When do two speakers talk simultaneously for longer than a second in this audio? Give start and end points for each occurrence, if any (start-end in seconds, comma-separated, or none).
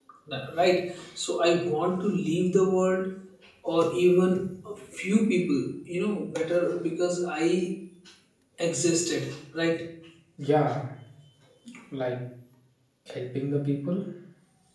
none